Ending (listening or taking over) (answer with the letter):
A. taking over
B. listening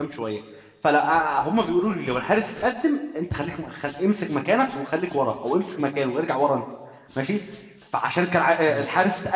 B